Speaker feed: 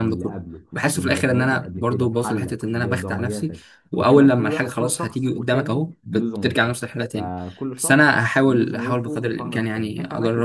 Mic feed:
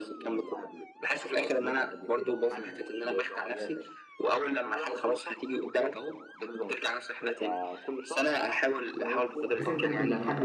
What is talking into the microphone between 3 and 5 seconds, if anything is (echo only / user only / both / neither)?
echo only